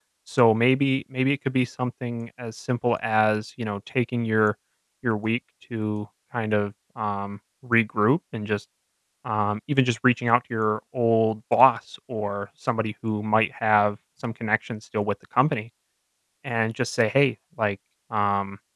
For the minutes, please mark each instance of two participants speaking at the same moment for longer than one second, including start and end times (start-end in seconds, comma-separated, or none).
none